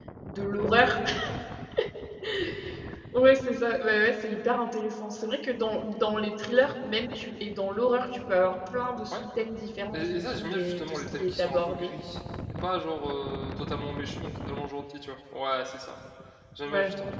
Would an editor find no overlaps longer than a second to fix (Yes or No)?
No